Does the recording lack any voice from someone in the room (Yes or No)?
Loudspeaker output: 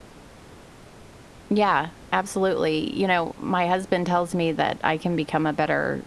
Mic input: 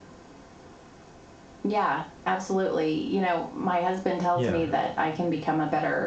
No